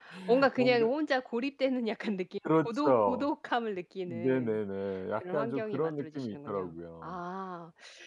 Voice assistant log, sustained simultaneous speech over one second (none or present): present